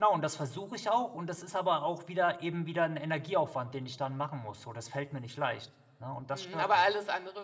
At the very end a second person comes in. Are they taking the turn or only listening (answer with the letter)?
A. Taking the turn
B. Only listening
A